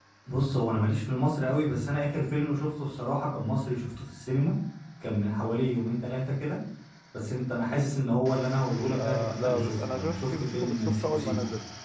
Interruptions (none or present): present